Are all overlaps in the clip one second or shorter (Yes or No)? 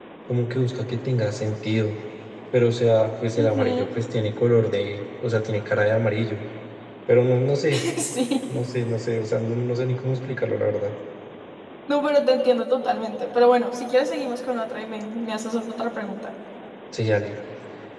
Yes